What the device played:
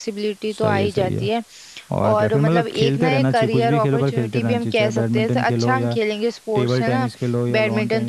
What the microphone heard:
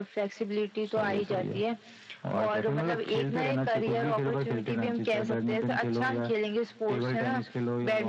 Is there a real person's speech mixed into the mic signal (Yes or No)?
No